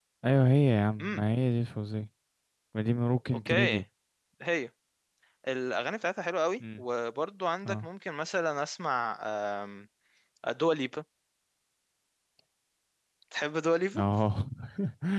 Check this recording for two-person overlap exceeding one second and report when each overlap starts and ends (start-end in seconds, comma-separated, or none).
none